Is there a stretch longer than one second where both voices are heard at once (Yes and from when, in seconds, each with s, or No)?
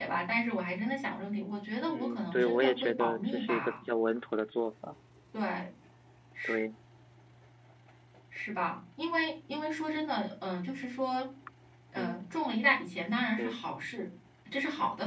Yes, from 1.9 s